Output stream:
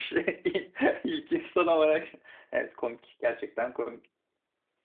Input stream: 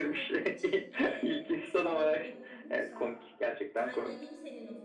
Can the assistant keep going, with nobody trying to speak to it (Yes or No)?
No